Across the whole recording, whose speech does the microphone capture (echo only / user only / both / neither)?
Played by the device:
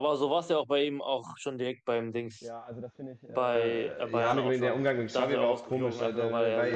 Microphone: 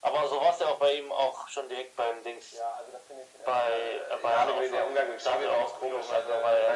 echo only